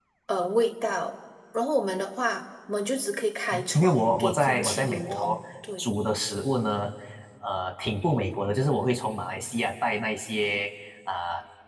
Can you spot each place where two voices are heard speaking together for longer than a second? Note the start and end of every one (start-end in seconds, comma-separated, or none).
3.7-5.4